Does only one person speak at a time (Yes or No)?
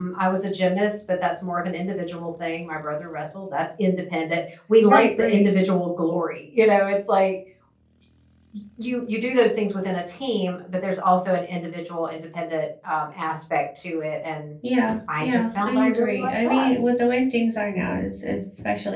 No